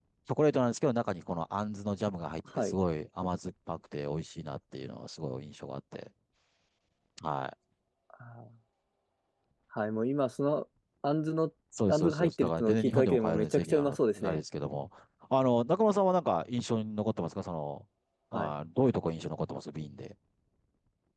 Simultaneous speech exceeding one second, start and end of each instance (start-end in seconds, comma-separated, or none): 11.9-14.4